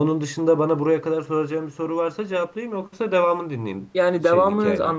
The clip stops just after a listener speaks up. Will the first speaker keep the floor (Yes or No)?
No